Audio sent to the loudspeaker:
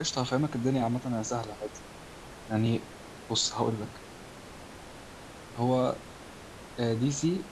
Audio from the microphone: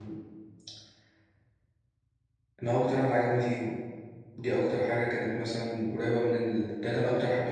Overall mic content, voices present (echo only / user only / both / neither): user only